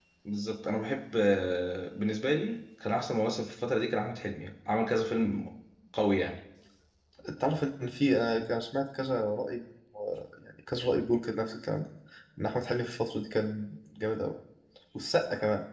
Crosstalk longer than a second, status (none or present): none